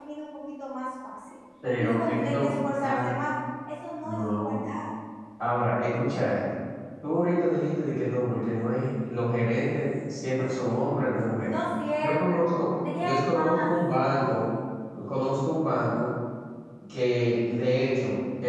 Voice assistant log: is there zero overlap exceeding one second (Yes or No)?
No